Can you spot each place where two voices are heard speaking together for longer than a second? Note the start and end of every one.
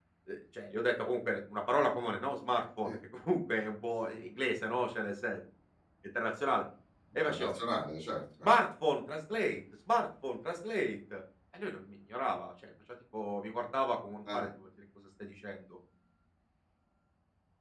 none

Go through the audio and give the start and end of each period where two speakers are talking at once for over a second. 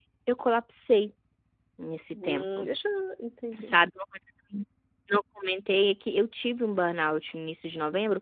none

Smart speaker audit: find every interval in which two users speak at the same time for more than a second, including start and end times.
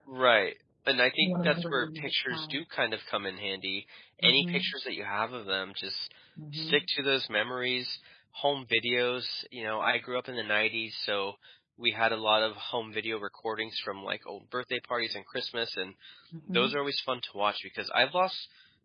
1.2-2.6

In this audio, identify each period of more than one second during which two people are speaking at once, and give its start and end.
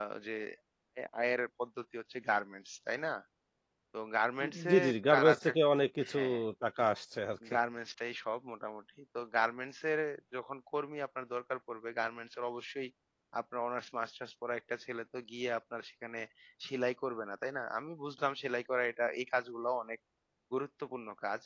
none

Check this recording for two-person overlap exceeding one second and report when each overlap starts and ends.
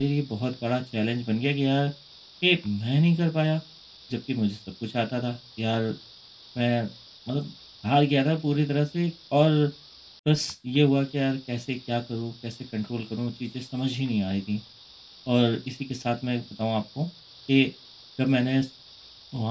none

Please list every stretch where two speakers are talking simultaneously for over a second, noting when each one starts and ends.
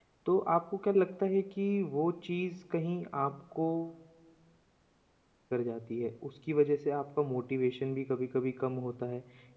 none

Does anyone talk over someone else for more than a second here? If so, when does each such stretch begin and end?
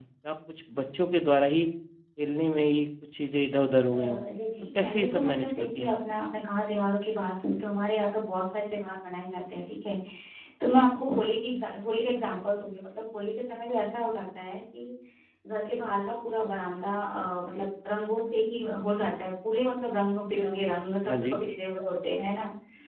4.8-6.0

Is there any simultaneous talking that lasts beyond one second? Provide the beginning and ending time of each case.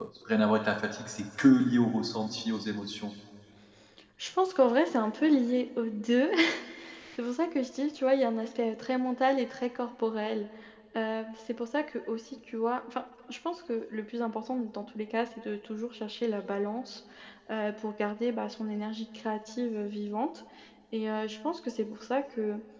none

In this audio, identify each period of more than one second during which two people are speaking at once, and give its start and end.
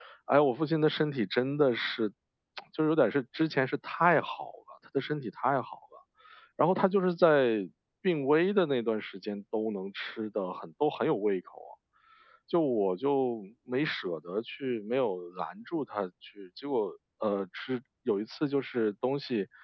none

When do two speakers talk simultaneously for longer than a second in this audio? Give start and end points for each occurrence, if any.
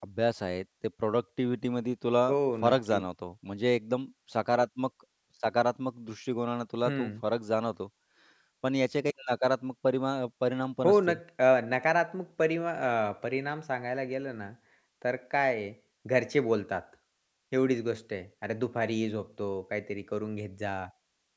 none

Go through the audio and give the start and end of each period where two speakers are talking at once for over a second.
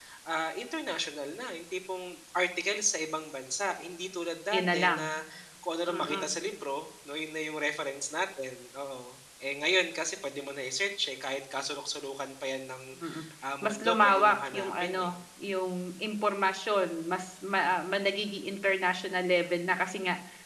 13.6-15.2

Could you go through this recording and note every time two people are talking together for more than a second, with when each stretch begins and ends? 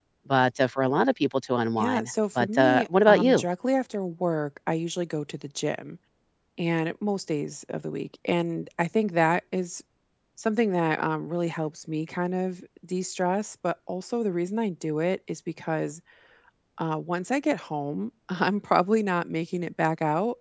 1.8-3.5

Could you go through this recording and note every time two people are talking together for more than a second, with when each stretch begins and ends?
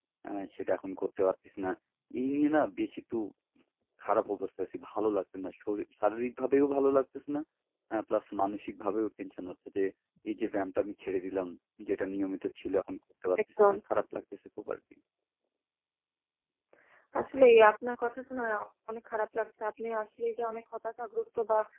none

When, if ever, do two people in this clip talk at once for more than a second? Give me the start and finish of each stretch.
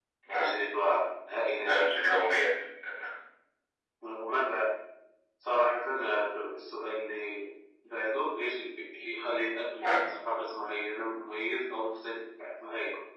none

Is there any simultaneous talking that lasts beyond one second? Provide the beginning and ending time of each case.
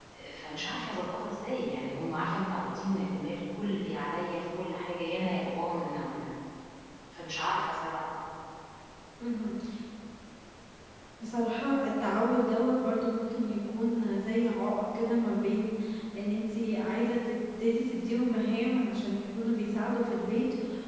none

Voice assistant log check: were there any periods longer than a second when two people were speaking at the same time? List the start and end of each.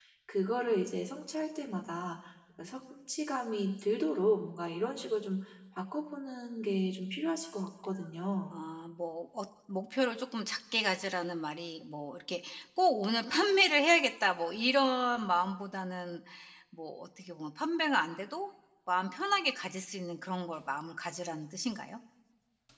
none

